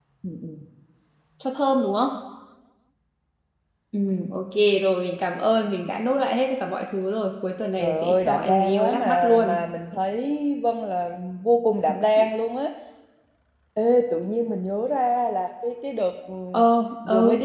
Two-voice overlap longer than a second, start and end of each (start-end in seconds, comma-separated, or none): 7.8-9.6